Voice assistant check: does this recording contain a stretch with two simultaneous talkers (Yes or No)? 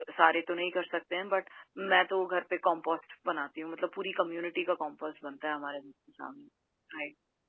No